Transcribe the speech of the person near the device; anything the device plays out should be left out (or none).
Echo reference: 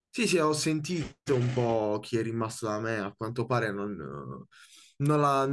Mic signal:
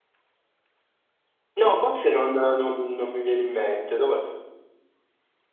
No, cozze non, non- non mi viene in mente. Dove...